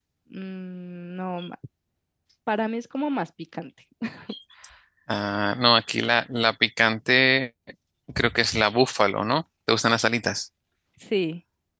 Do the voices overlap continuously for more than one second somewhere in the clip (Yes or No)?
No